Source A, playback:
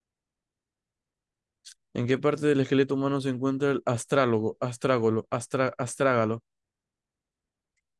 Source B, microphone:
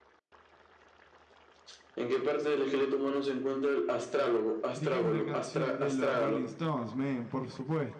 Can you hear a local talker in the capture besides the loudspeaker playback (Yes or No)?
Yes